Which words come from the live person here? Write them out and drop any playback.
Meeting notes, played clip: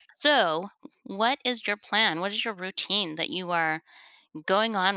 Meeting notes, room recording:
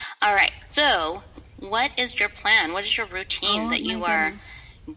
Oh my goodness.

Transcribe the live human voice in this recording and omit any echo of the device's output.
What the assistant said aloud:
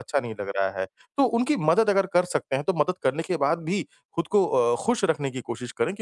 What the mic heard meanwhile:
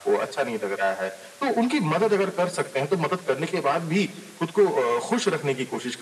none

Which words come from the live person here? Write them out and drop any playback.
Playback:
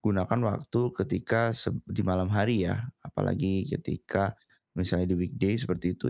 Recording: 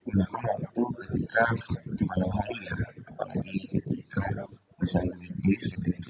none

